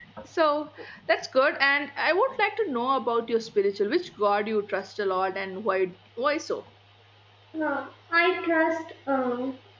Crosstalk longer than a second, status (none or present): none